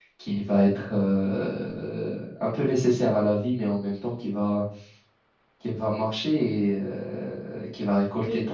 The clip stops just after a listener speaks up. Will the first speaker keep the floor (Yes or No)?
Yes